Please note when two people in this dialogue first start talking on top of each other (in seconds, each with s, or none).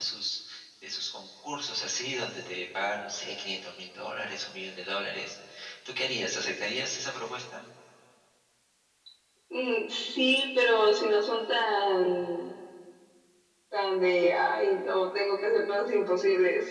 none